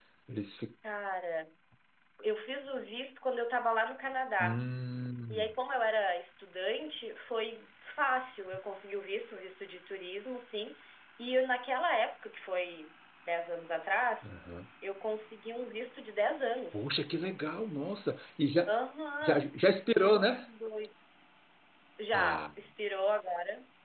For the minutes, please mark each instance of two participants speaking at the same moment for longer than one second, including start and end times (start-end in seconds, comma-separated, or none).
none